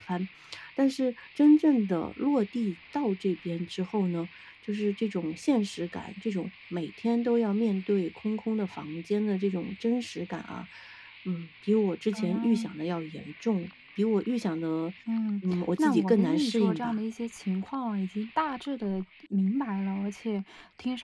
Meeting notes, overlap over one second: present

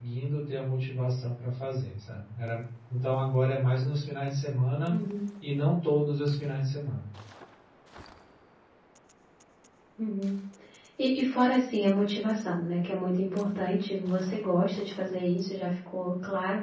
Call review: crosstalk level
none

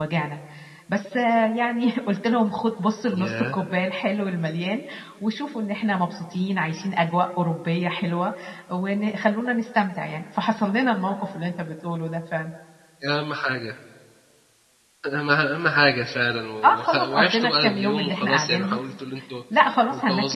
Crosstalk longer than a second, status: present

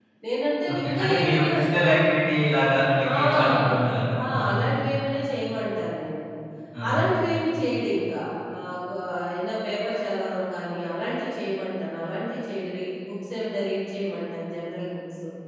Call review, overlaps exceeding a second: present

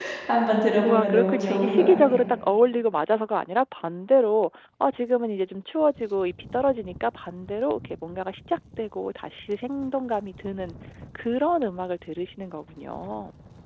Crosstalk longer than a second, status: present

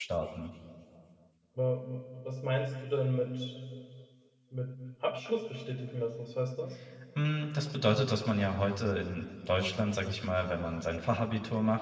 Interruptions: none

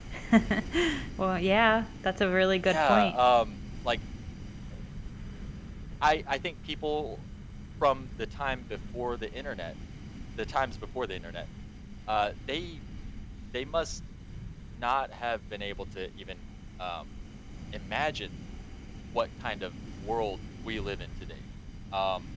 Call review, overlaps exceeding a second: none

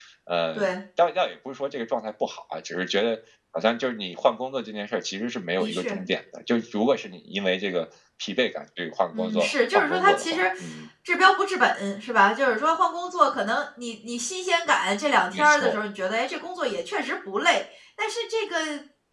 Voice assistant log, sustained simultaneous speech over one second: present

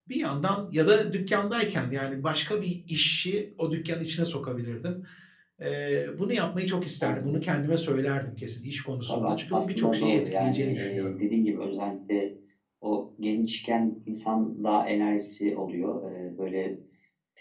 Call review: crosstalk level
present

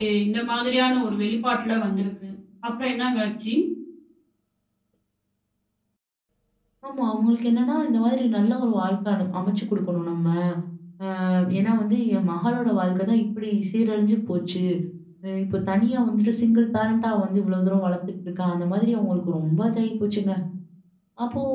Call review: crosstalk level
none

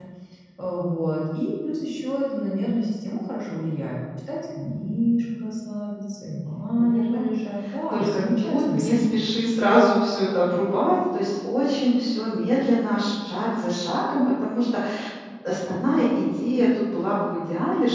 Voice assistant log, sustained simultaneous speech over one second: present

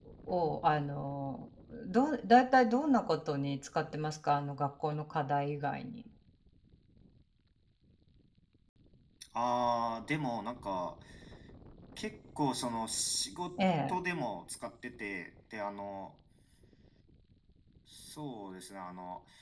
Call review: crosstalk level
none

